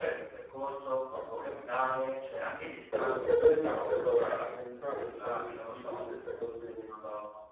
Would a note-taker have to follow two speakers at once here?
Yes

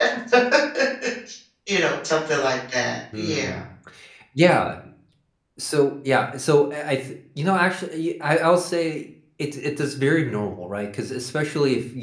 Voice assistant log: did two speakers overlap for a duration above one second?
No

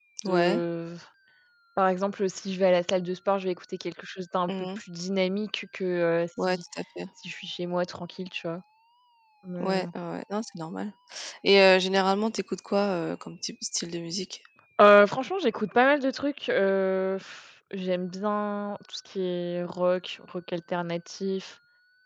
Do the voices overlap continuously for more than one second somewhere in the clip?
No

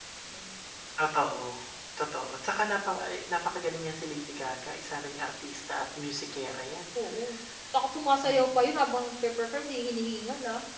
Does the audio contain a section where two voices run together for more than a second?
No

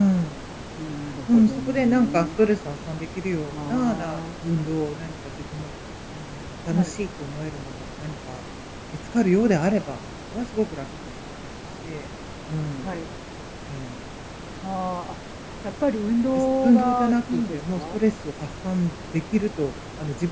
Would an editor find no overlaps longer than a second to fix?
No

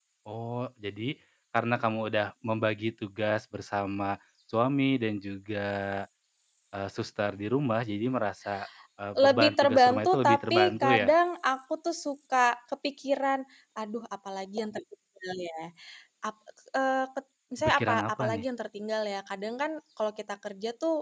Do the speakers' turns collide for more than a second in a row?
Yes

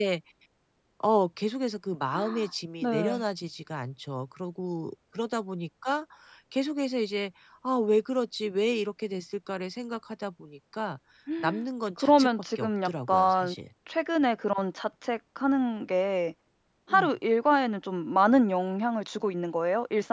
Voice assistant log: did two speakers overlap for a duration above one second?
Yes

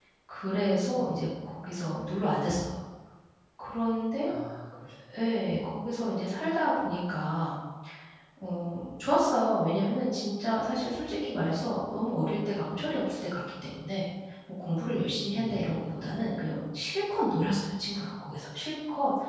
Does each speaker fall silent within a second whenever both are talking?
Yes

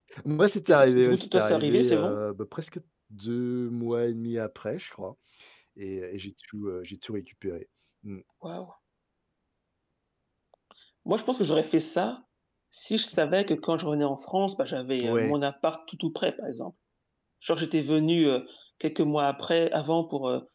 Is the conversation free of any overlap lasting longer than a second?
No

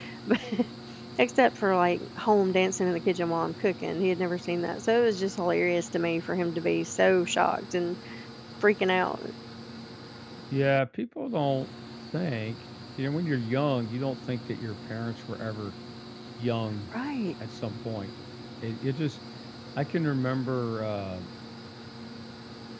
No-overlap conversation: Yes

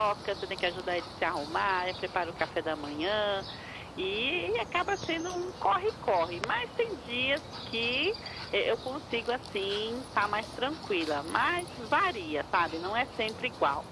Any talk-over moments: No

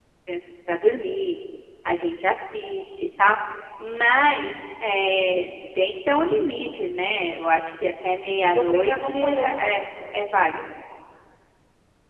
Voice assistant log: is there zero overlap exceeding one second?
No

